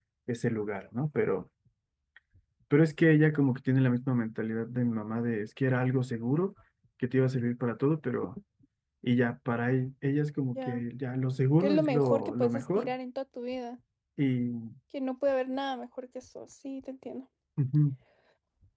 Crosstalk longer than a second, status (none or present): present